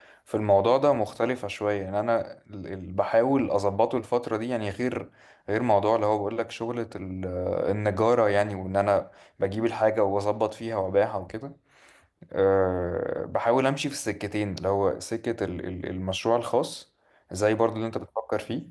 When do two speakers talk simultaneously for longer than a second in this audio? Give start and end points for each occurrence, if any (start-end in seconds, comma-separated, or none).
none